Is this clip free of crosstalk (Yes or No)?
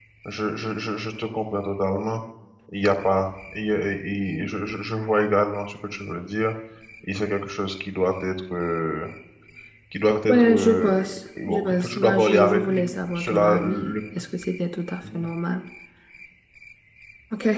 No